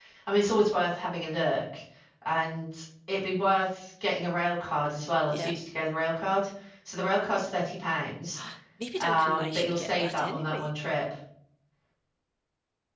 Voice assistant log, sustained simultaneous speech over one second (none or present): present